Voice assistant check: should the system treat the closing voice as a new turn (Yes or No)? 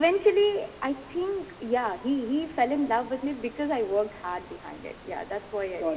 Yes